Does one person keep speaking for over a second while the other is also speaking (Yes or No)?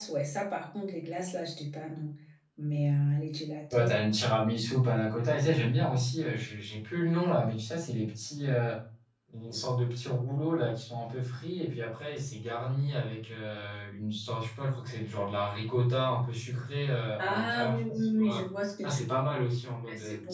Yes